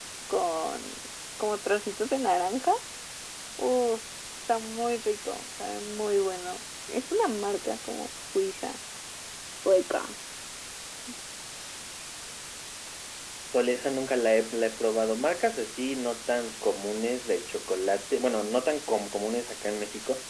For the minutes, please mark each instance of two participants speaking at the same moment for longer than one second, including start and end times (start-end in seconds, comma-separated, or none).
none